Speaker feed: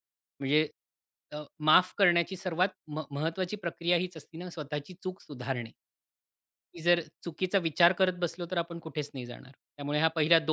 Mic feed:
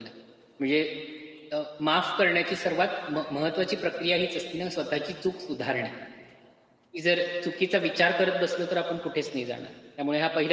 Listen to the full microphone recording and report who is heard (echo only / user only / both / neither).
echo only